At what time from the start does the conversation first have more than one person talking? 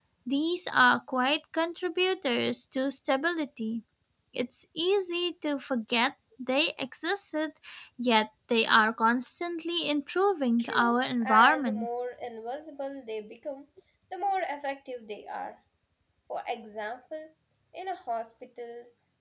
11 s

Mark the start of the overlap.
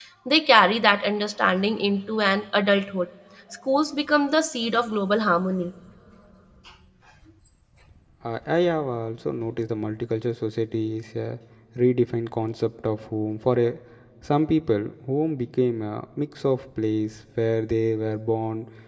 none

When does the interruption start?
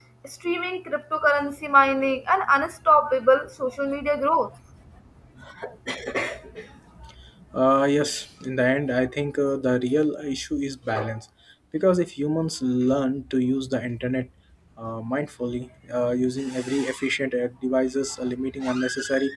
none

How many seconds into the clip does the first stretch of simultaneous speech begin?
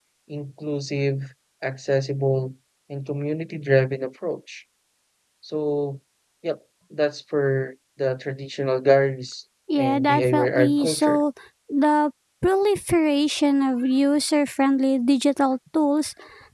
10 s

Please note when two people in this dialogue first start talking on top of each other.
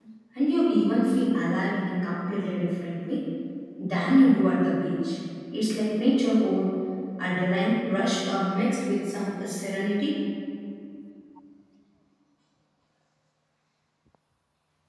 none

